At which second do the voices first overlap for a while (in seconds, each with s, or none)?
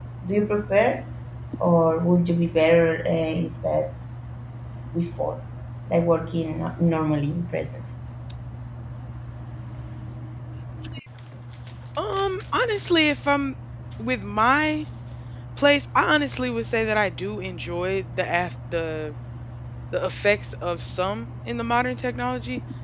none